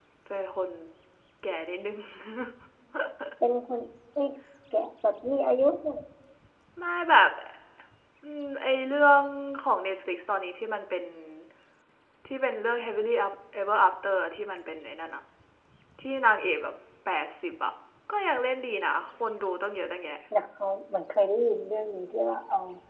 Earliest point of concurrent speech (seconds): none

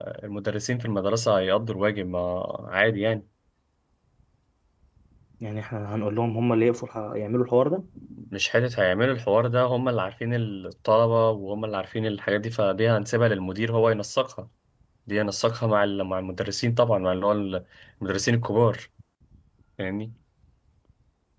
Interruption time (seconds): none

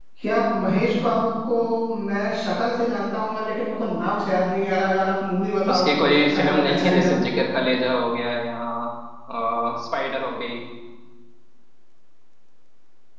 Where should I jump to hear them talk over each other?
5.7 s

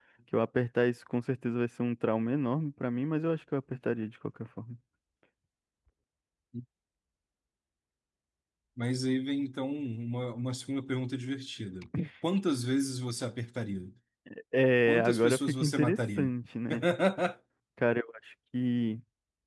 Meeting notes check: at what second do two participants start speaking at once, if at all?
14.9 s

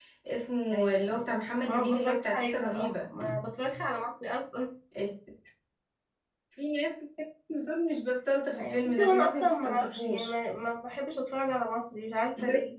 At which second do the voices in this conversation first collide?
0.7 s

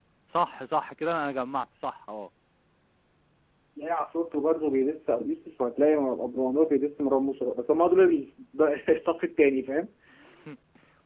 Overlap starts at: none

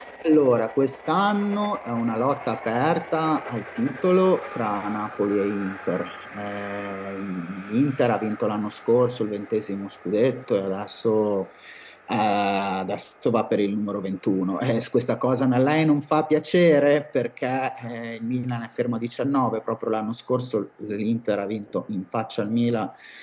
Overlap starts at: none

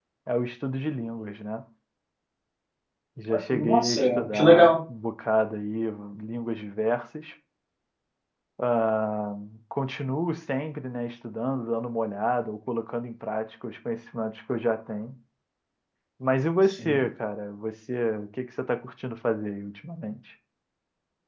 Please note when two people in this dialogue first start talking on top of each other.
3.5 s

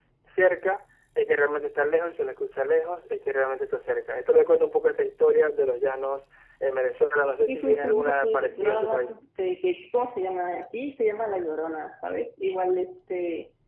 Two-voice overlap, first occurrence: 7.5 s

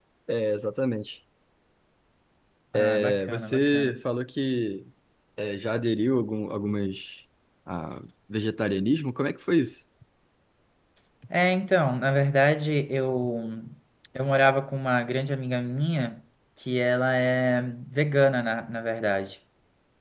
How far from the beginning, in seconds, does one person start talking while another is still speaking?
2.7 s

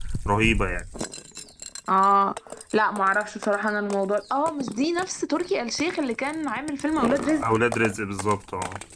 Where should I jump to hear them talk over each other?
none

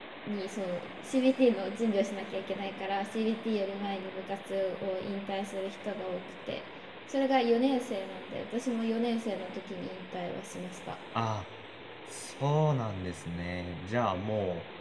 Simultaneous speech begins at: none

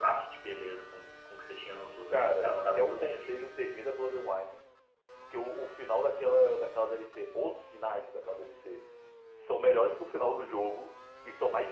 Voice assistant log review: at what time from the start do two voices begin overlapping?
2.1 s

